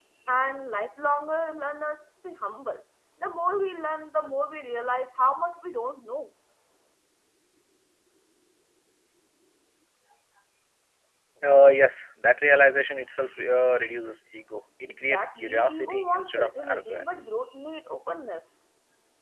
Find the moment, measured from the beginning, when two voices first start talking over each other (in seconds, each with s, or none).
15.0 s